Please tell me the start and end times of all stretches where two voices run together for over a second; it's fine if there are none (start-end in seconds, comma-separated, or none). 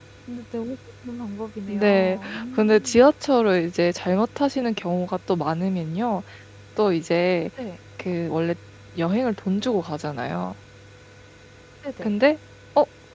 1.7-3.0